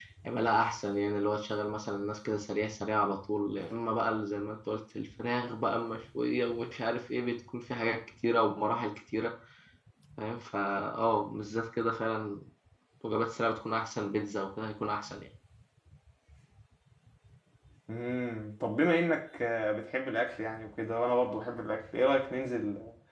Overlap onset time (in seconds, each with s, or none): none